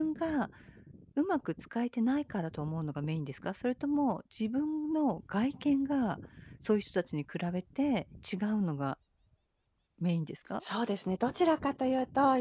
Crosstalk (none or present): none